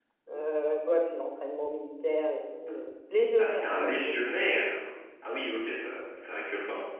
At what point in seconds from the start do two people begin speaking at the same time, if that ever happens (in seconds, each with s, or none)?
3.4 s